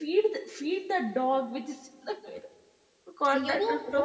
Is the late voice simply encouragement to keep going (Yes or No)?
No